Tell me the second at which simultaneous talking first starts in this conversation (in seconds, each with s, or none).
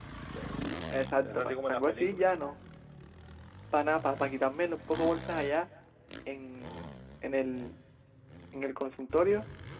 1.2 s